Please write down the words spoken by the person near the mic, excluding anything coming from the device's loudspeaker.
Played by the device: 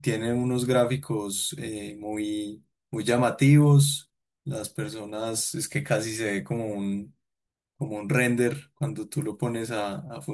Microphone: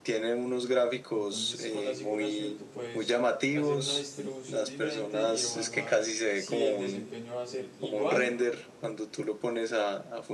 Entonces, con la simulación tú puedes hacer una distribución diferente y evaluar si el desempeño va a ser igual,

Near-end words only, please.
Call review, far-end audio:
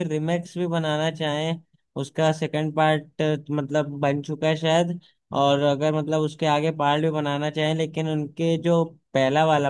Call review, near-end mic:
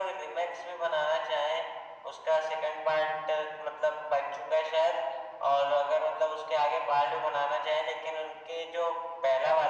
none

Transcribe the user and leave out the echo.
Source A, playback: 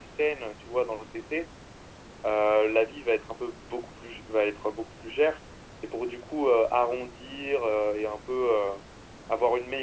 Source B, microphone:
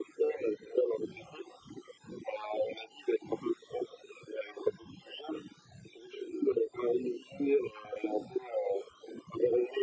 none

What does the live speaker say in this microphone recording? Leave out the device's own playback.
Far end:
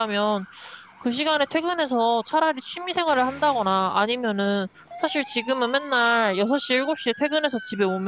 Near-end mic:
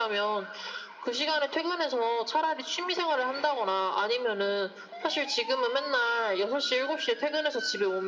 none

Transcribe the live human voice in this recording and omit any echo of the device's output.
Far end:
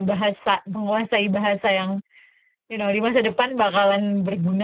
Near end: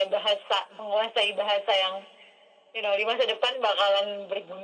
none

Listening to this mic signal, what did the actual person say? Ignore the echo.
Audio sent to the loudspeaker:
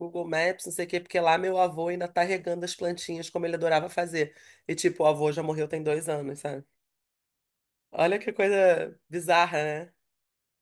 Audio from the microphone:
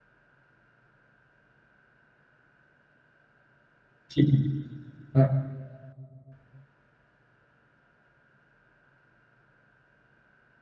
Tipo, ah,

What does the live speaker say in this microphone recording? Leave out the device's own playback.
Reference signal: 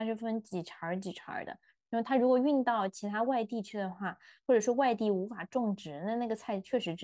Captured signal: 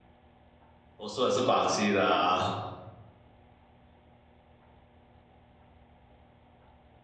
我说的是广西的啊，

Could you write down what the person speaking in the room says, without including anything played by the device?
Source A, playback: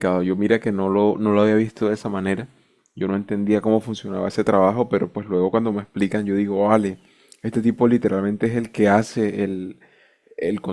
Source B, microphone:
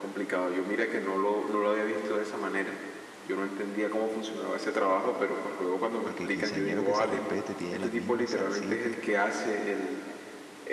porque el quinceañero que se respete tiene las mismas salsitas

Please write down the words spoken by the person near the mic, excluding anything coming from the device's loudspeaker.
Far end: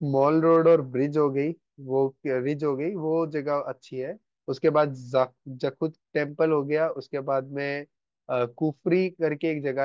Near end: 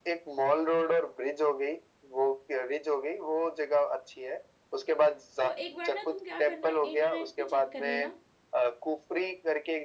तो एक बार ना तुम क्या करना है, इंटरनेट पे चेक कर लेना

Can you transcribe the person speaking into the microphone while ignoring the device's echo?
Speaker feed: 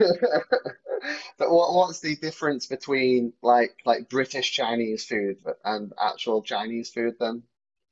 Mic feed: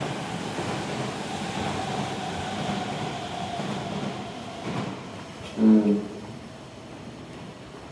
Mm,

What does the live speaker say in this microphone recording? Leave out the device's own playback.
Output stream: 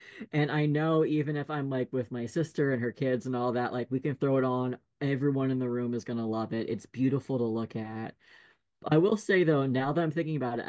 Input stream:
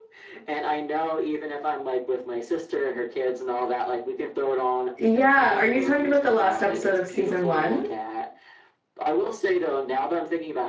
Yeah, are you talking about the last episode of season one?

